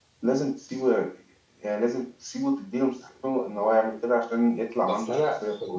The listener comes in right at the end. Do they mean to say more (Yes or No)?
Yes